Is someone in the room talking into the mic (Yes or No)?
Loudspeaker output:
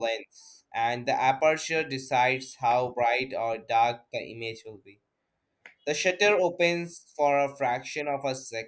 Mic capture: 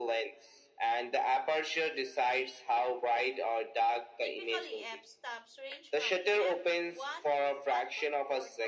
Yes